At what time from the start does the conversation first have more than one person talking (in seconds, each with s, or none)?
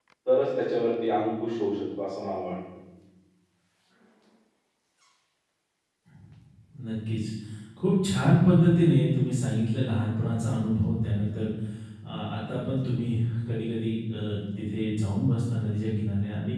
none